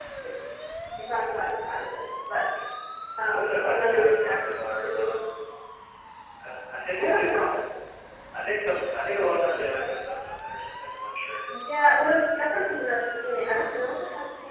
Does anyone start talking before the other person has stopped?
Yes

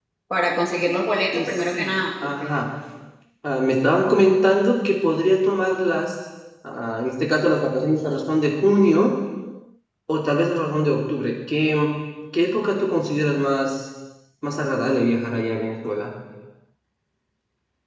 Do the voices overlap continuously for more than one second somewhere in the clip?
Yes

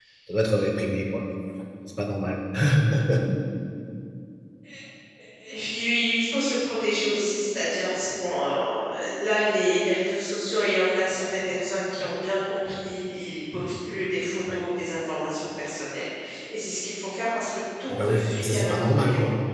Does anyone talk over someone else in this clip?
Yes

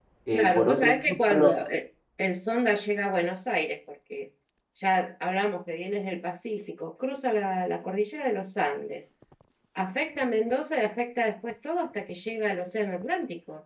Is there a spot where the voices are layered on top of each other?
Yes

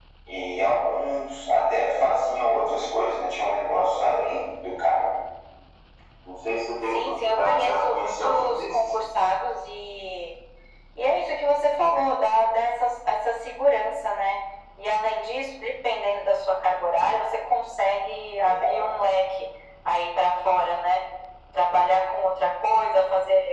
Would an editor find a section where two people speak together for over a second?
Yes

